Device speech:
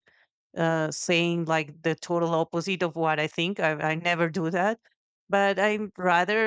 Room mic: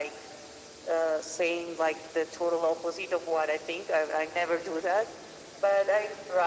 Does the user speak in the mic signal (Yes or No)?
No